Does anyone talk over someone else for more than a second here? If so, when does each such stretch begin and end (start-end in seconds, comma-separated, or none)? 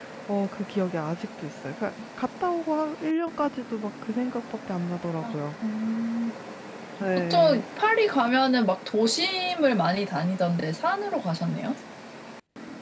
none